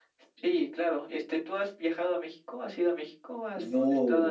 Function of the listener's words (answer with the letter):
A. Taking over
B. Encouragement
A